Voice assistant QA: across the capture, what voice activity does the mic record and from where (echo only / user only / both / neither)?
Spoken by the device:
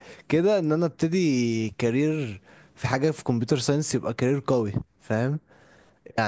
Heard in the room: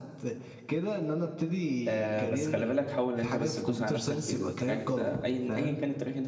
both